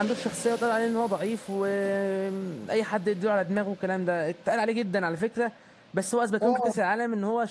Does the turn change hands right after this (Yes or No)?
No